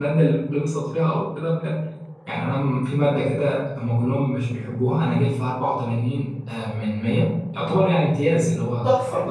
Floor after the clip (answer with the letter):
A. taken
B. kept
B